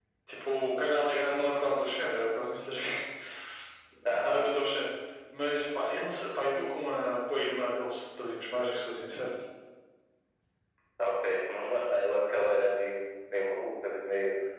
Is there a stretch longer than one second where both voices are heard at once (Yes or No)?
No